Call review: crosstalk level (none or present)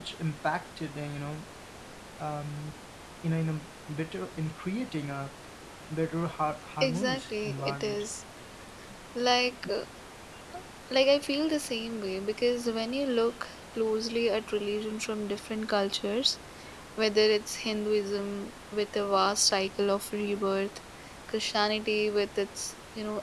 present